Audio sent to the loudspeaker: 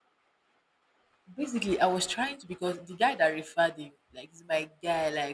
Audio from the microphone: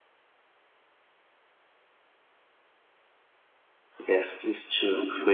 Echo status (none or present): none